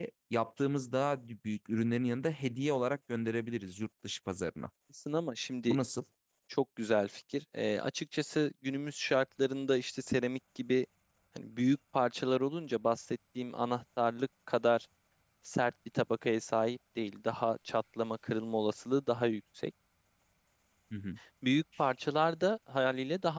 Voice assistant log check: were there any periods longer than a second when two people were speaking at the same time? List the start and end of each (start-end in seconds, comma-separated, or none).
none